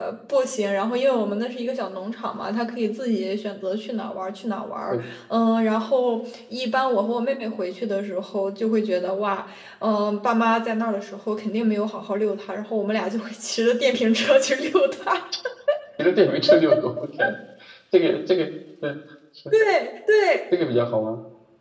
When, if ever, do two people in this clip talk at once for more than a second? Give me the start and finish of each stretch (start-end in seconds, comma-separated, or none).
none